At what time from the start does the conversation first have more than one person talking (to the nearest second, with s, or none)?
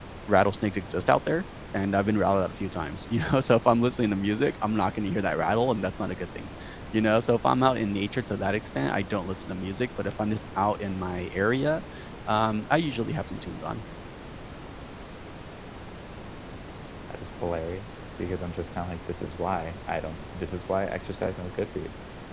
none